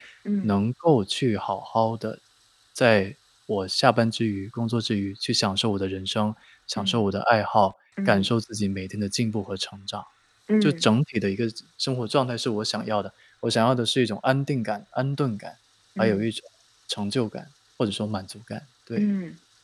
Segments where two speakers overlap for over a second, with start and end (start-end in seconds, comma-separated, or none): none